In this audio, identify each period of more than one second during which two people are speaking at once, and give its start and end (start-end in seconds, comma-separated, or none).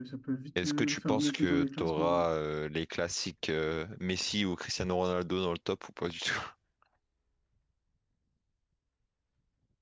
0.6-2.2